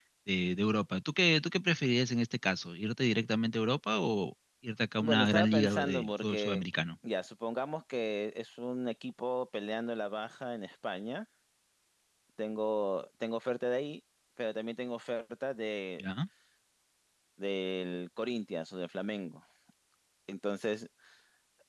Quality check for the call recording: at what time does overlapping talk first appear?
5 s

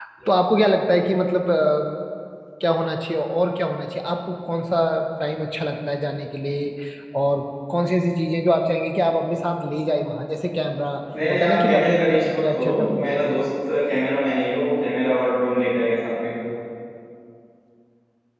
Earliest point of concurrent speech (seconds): 11 s

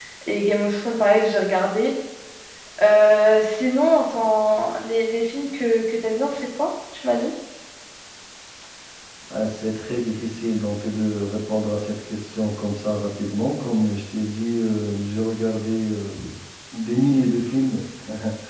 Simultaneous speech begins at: none

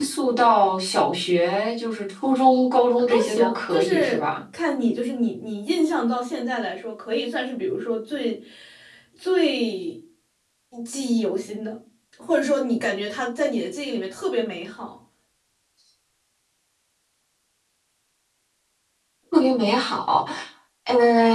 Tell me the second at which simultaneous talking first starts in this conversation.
3 s

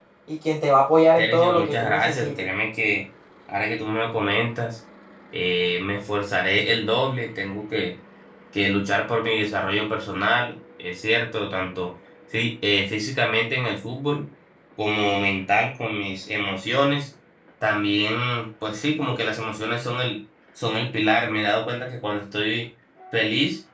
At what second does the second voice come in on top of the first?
1 s

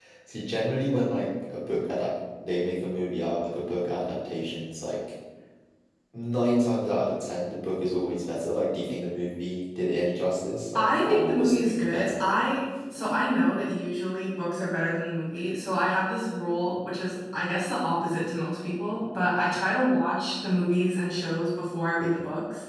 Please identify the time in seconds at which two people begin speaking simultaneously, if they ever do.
11 s

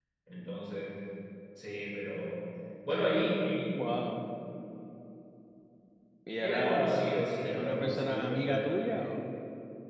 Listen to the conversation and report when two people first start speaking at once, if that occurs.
6 s

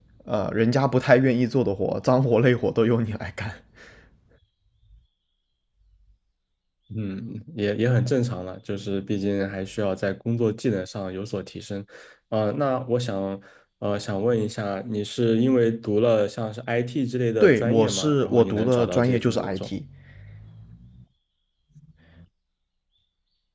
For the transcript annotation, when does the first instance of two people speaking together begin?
17 s

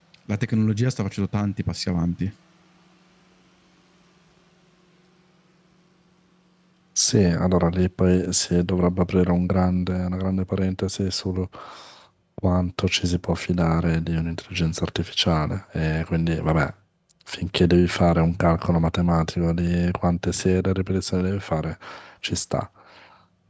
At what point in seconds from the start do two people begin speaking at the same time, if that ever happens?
none

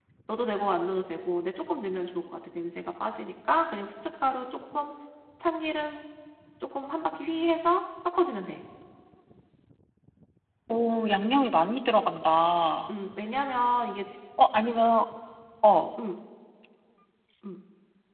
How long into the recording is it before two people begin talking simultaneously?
none

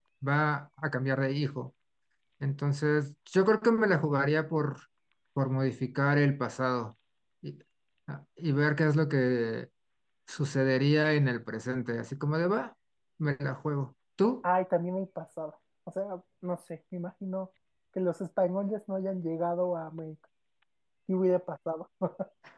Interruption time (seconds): none

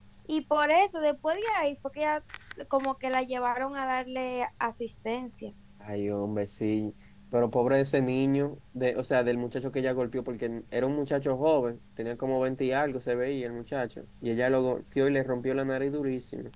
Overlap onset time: none

